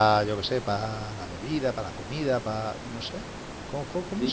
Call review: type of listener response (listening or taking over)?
taking over